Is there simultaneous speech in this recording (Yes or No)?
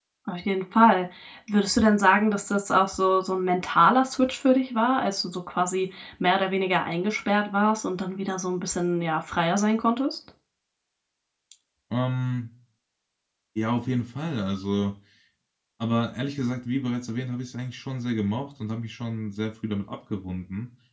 No